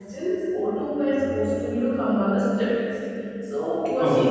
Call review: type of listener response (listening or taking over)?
listening